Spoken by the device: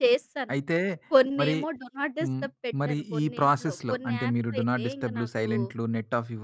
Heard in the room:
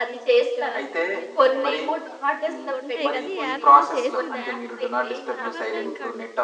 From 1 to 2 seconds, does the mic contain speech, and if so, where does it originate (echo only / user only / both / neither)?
both